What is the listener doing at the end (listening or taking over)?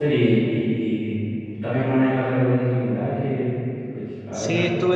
taking over